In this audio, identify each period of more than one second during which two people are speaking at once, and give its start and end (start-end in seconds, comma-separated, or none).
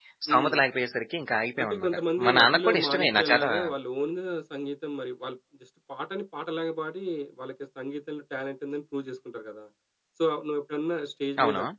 1.6-3.4